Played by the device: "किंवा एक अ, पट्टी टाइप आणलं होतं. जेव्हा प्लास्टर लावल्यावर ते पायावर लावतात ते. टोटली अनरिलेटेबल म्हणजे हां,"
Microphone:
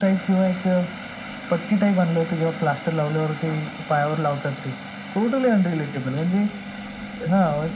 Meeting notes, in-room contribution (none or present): none